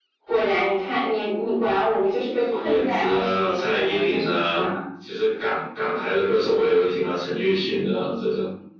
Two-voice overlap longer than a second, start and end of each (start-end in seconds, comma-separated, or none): 2.5-4.7